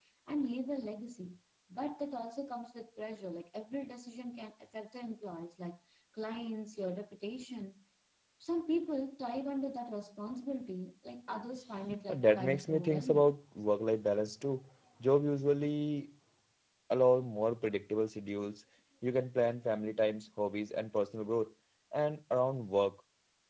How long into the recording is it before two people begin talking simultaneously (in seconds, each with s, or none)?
12.1 s